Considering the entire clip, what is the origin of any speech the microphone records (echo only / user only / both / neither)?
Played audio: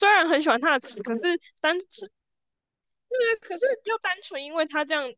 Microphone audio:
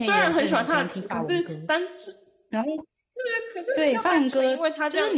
both